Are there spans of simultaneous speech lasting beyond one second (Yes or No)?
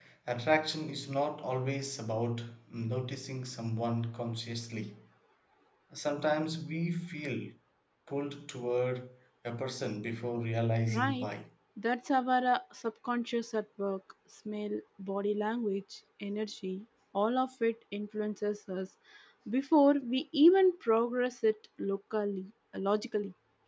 No